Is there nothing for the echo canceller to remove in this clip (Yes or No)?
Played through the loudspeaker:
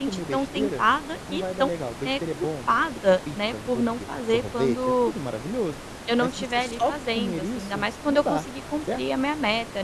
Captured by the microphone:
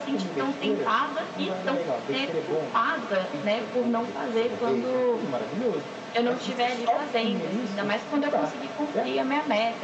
No